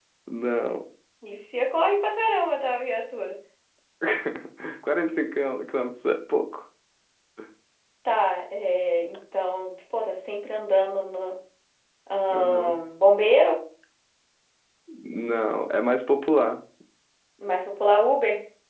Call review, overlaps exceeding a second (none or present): none